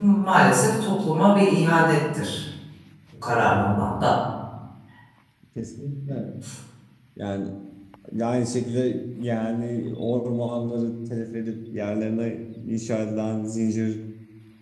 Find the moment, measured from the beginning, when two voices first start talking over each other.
none

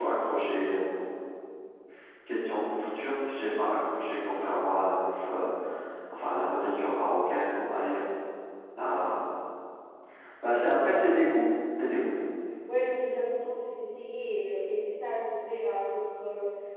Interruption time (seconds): none

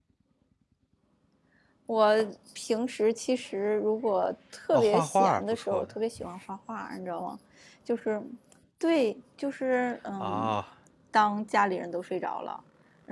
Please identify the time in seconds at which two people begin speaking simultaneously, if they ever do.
5 s

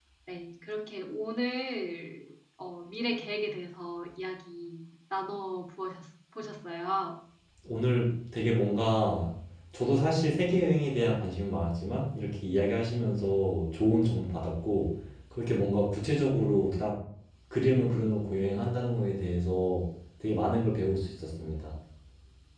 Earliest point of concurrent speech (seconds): none

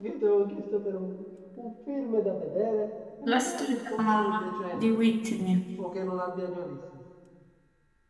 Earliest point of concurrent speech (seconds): 3 s

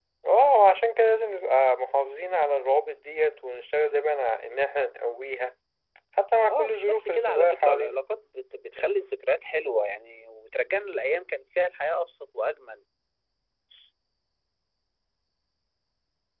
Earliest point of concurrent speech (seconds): 6 s

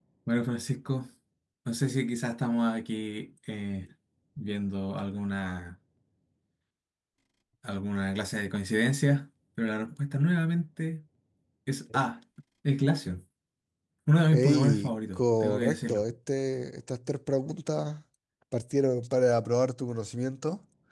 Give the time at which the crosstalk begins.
14 s

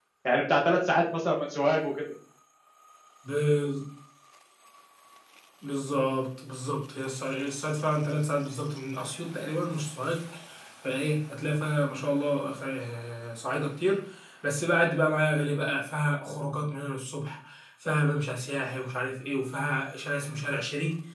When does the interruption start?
none

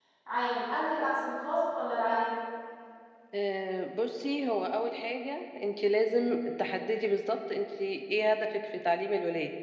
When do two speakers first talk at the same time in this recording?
none

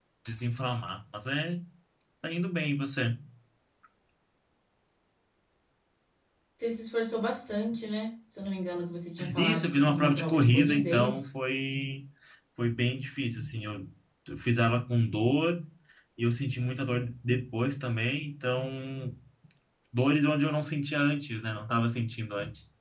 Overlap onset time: 9 s

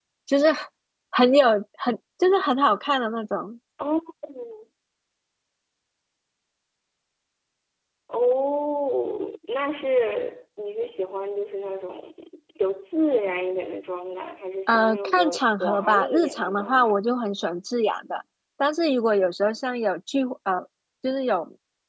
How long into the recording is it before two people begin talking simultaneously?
15 s

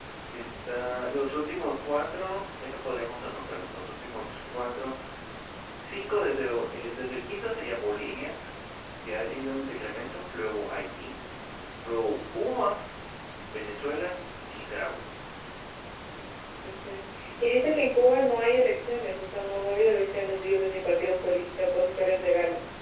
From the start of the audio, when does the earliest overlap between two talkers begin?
none

